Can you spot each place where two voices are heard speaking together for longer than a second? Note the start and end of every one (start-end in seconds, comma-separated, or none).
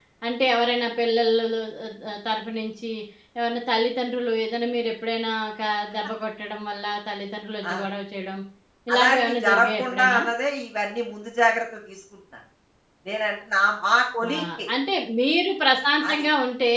8.9-10.2